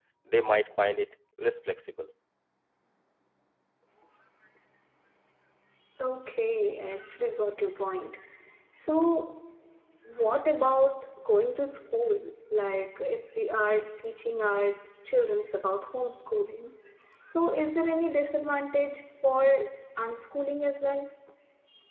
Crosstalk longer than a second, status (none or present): none